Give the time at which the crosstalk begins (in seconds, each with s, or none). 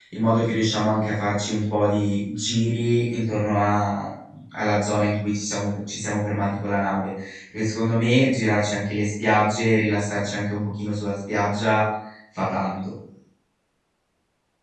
none